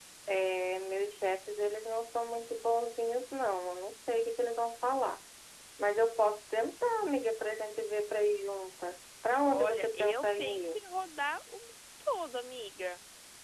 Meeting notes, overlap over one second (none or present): present